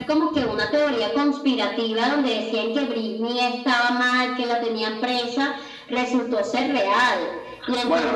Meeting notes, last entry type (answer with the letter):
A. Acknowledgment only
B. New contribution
B